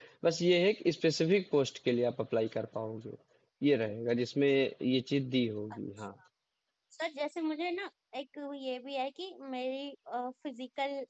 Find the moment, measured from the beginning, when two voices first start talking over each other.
none

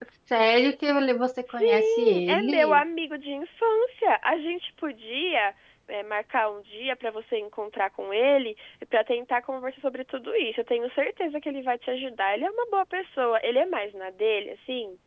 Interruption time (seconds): 1.5 s

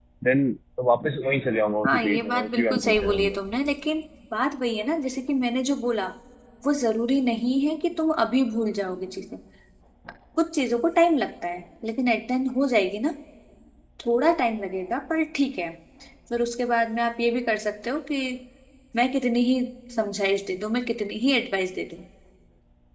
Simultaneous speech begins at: 1.8 s

